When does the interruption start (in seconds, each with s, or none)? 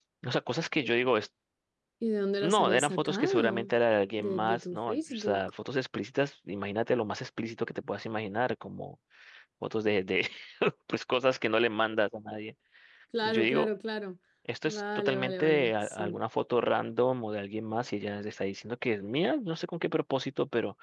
2.4 s